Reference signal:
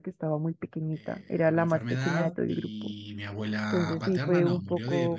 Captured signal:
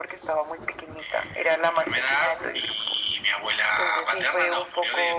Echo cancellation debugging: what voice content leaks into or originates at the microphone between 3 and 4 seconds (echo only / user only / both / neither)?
echo only